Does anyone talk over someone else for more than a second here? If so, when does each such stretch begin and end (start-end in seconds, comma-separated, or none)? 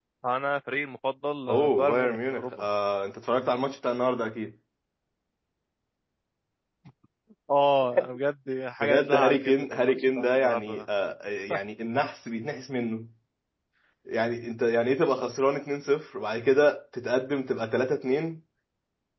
1.5-2.7, 8.8-10.8